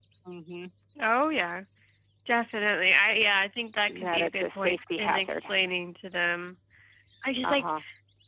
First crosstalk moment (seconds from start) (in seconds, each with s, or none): 4.0 s